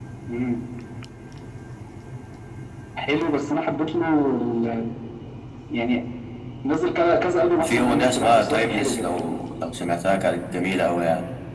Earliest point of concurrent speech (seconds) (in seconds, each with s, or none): 7.5 s